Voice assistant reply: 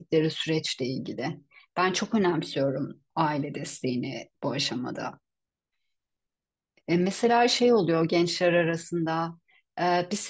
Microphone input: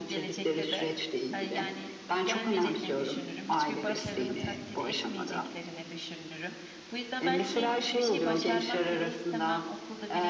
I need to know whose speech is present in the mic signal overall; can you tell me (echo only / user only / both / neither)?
both